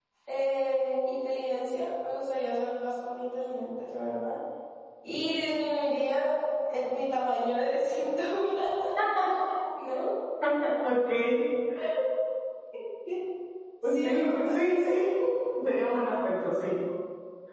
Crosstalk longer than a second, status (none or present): present